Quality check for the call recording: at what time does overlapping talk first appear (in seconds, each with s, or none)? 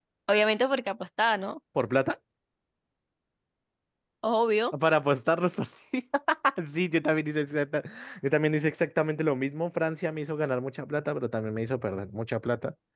none